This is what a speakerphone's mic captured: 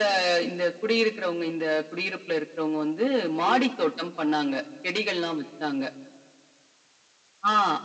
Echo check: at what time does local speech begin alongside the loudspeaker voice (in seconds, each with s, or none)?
3.4 s